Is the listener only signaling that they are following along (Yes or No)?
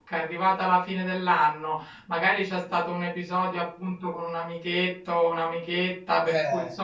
Yes